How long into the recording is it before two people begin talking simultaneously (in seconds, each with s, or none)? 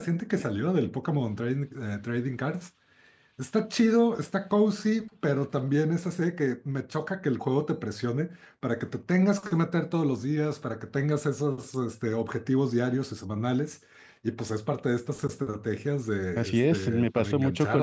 16.4 s